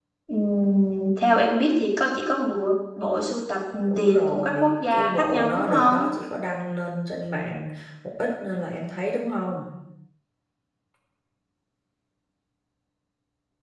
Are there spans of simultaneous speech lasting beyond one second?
Yes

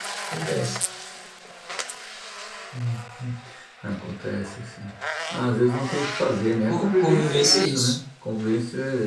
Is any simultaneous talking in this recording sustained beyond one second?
Yes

